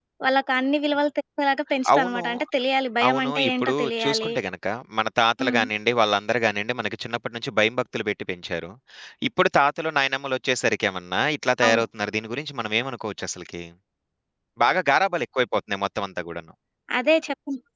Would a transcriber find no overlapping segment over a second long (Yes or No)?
No